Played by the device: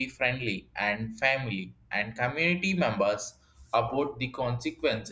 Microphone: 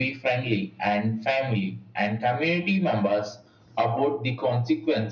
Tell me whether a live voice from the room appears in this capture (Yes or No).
No